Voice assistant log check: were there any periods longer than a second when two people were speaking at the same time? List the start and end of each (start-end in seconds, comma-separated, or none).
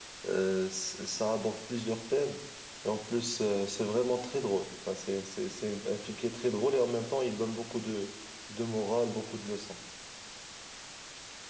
none